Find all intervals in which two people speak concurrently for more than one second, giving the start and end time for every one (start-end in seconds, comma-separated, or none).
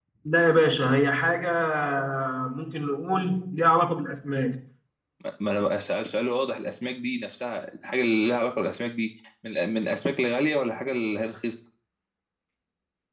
none